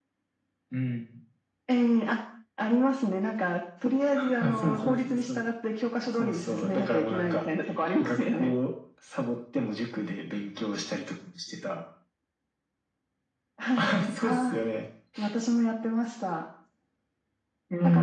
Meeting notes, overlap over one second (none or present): present